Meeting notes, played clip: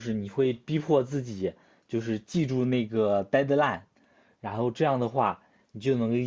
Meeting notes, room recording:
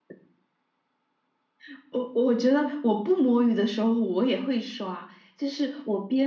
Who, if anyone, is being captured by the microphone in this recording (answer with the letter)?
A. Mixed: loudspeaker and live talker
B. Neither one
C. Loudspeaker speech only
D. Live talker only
D